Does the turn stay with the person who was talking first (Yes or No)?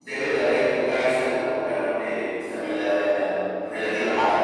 No